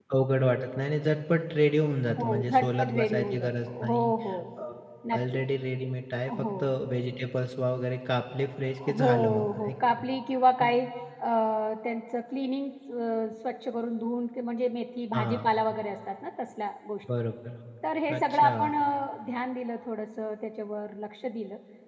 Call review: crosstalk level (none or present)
present